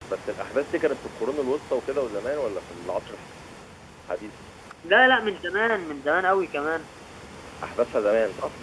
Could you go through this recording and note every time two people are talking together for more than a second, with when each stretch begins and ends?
none

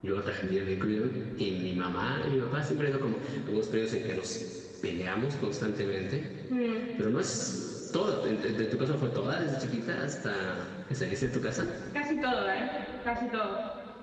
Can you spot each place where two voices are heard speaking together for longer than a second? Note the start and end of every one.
none

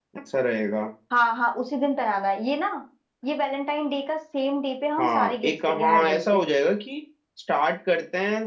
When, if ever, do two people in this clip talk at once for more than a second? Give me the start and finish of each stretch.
5.0-6.4

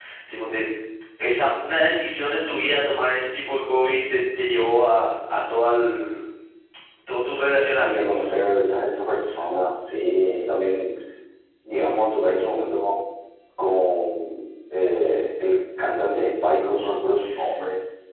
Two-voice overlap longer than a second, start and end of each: none

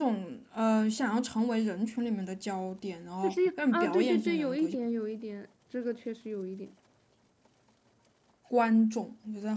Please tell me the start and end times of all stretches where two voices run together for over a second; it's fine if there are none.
3.2-4.7

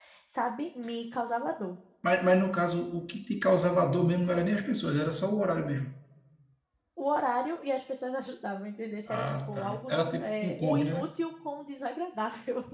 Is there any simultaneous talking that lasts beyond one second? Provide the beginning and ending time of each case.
9.2-11.1

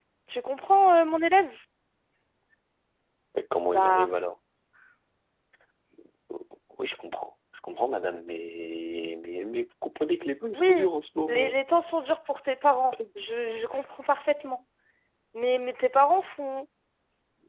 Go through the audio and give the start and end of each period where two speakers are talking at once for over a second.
none

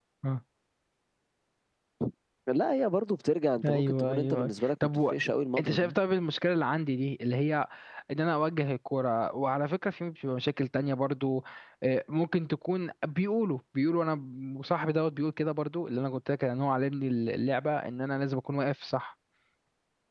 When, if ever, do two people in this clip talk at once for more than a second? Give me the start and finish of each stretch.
3.6-5.1

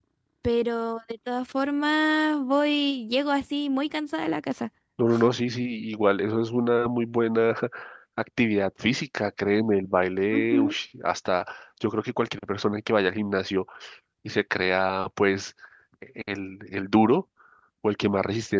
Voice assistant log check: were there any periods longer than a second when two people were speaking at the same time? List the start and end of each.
none

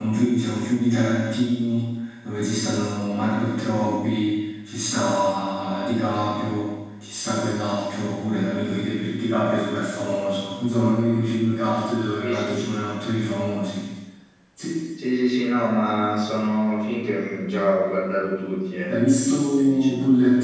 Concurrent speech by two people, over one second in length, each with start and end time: none

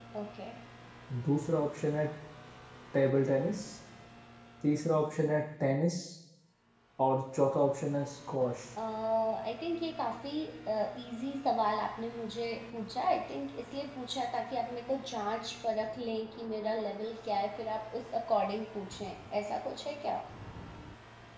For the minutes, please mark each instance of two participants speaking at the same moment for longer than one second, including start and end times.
none

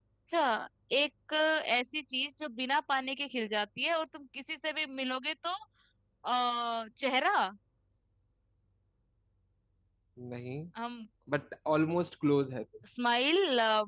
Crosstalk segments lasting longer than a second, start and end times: none

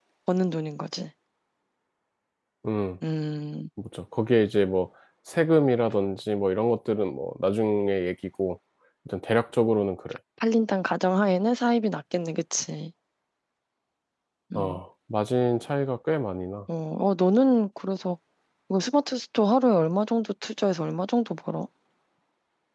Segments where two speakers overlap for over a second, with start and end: none

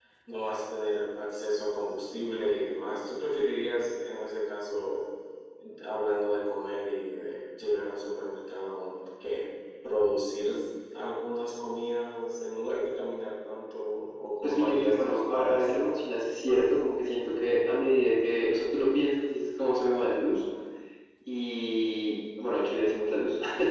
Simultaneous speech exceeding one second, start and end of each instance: 14.4-16.0

